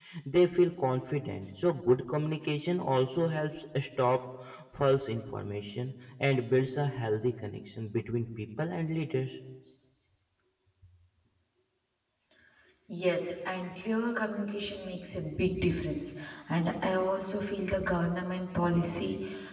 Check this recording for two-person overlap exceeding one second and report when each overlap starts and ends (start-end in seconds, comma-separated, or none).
none